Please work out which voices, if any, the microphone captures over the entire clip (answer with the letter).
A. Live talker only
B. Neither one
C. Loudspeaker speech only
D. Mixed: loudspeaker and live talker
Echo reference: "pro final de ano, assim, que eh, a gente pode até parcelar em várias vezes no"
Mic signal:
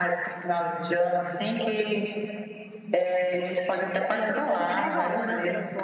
D